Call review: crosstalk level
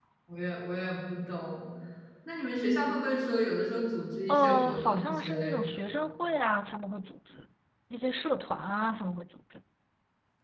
present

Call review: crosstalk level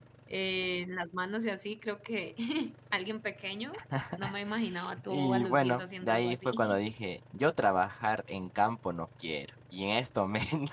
present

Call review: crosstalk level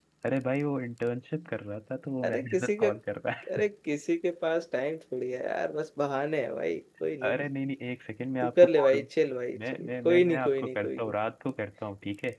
present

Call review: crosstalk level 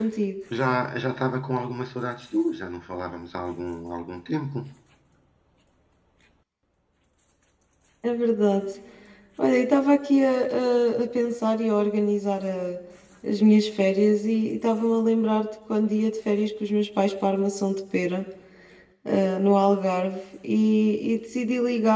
none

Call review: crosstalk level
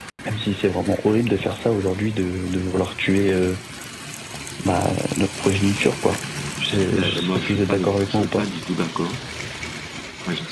present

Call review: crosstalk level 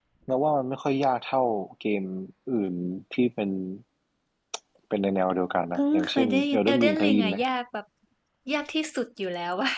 present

